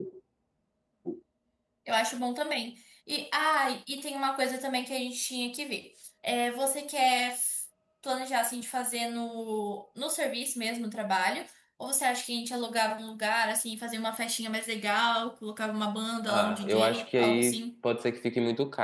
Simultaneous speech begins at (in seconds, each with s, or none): 16.3 s